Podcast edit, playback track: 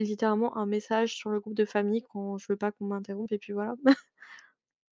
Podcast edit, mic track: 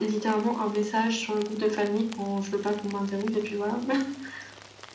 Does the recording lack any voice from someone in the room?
Yes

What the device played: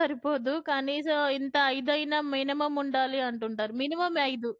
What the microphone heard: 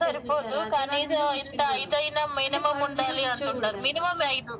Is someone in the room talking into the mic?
Yes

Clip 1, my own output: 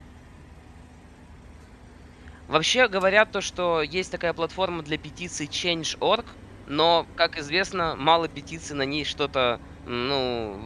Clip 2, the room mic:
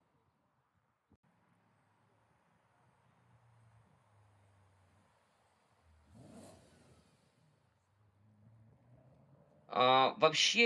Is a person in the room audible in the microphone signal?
Yes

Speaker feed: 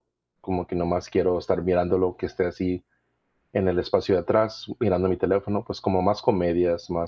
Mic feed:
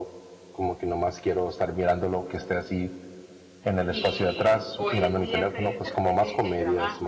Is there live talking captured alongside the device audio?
Yes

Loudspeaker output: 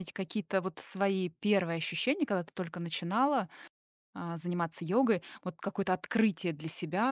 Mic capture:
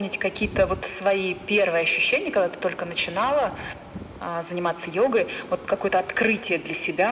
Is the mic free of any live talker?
Yes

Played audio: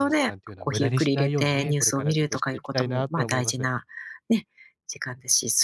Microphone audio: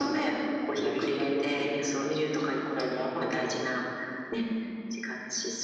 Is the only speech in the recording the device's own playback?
Yes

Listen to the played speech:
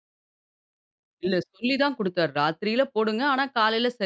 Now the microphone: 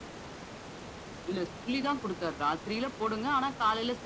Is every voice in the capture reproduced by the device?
Yes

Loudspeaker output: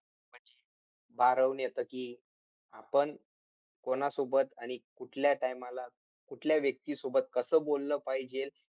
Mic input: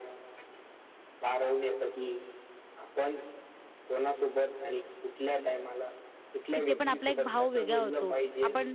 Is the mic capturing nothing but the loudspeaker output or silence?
No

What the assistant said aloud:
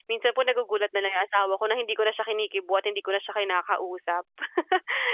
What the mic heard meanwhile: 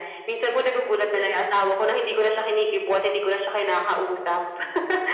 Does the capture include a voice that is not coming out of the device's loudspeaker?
No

